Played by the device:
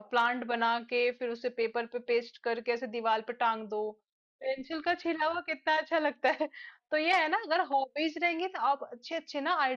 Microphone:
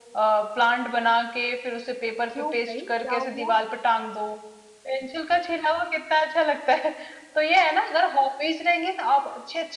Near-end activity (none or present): present